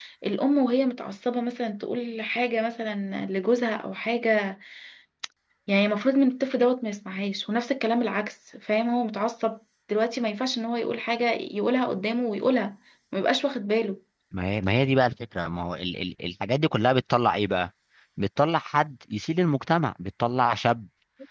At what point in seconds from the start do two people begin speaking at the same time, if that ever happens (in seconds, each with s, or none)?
none